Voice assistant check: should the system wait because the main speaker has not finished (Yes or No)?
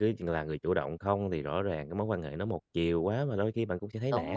No